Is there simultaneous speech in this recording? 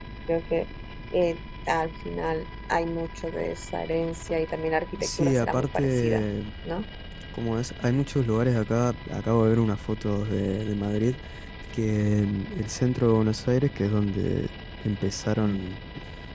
Yes, from 5.0 s

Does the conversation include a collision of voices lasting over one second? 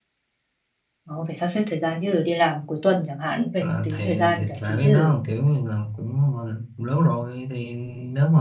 Yes, from 3.6 s

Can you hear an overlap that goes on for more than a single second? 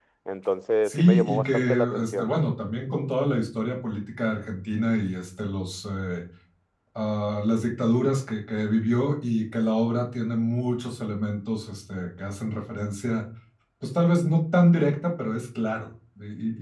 Yes, from 0.8 s

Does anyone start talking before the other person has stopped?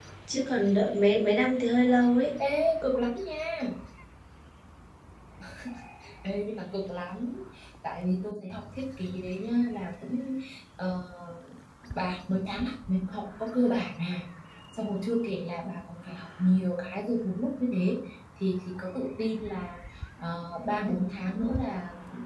No

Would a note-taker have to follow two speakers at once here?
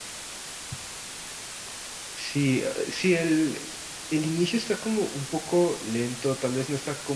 No

